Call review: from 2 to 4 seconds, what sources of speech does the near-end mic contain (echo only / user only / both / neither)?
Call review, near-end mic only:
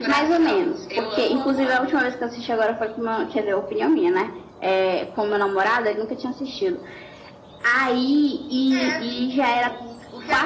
echo only